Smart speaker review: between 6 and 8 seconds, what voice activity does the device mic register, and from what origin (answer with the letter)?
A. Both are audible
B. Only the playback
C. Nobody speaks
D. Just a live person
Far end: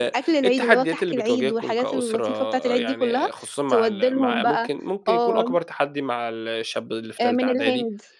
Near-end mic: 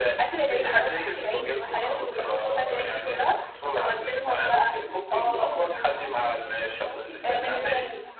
A